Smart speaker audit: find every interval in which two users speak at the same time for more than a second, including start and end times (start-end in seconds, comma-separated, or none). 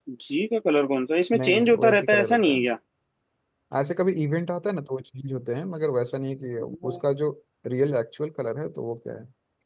1.4-2.7